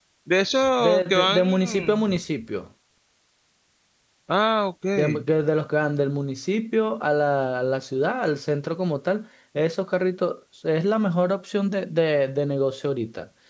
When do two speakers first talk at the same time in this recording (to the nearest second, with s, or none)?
1 s